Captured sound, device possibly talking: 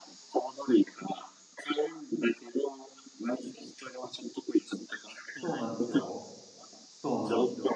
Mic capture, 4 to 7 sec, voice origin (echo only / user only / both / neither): both